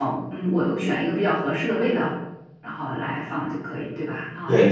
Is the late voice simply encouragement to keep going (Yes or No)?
No